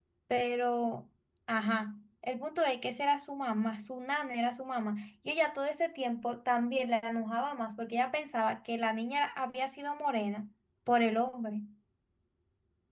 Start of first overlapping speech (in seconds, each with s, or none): none